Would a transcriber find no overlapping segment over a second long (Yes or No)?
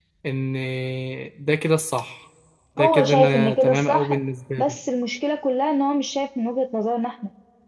No